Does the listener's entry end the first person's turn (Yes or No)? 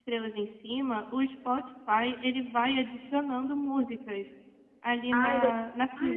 Yes